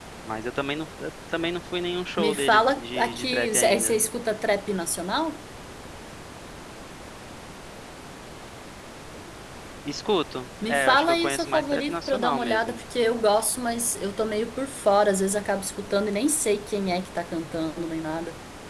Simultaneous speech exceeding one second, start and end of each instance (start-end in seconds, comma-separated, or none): 2.2-4.0, 10.6-12.8